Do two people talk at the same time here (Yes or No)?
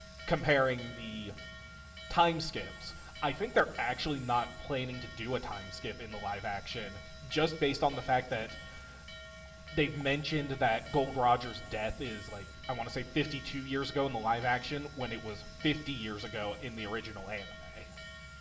No